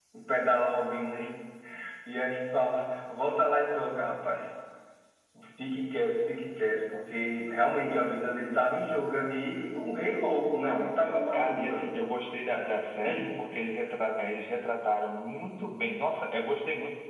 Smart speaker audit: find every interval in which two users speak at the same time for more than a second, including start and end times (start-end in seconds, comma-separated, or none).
10.6-12.0